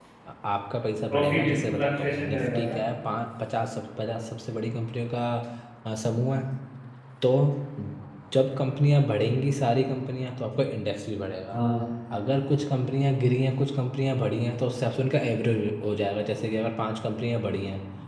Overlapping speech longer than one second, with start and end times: 1.1-2.8

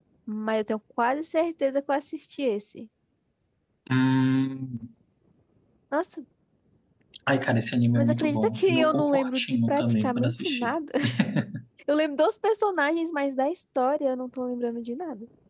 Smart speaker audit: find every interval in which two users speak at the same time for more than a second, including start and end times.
8.0-10.7

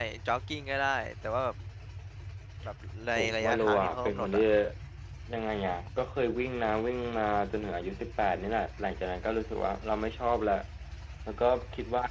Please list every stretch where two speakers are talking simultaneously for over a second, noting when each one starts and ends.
3.2-4.4

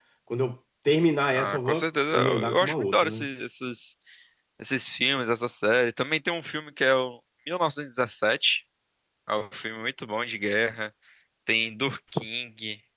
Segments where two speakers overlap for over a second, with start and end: 1.3-3.3

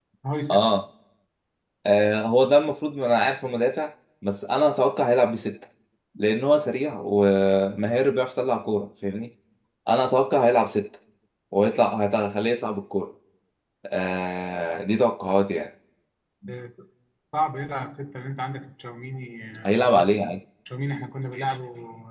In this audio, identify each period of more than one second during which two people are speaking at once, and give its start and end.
none

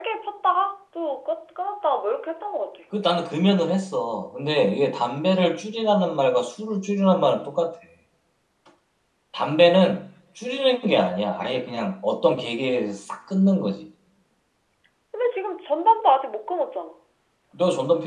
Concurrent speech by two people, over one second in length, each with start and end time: none

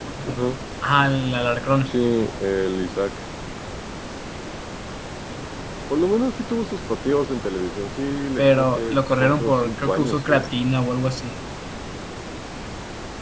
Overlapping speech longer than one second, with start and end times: 8.4-10.5

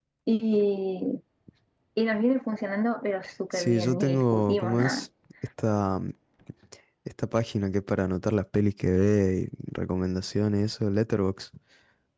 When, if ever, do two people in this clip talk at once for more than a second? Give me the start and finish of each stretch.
3.5-5.0

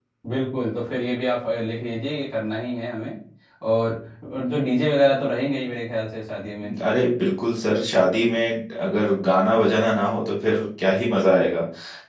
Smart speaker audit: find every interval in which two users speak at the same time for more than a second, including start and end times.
none

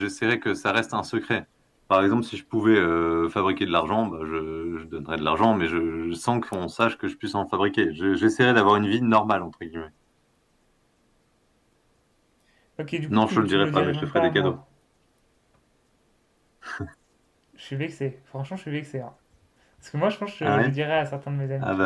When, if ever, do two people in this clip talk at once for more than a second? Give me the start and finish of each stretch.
13.1-14.6

